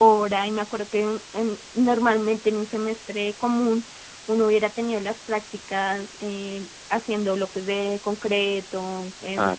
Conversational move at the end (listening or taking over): listening